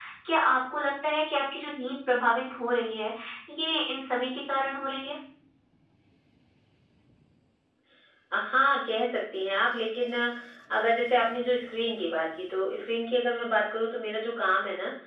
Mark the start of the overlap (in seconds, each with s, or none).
none